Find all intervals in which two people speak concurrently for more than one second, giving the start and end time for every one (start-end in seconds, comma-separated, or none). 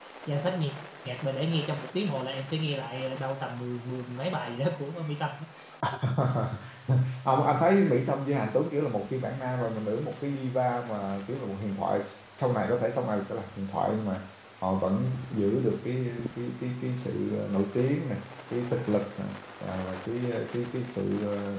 none